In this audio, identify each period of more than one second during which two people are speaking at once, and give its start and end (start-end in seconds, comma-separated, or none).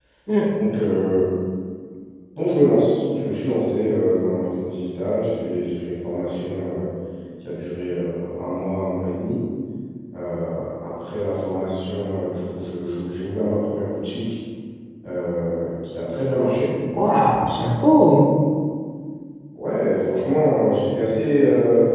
none